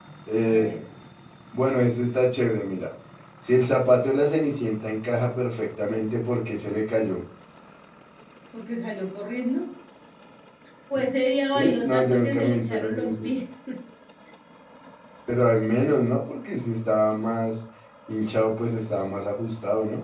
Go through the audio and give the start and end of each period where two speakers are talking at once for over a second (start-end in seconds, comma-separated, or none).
11.5-13.3